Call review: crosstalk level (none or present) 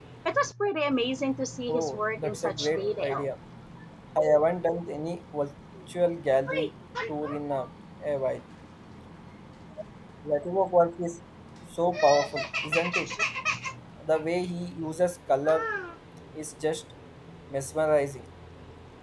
present